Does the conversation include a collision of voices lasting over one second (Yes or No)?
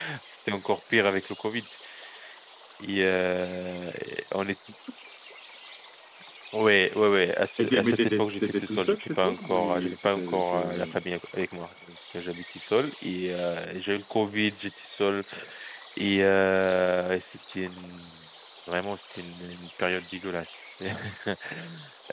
Yes